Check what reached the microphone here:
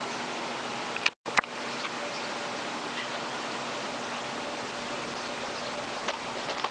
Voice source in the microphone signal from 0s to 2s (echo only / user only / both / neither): neither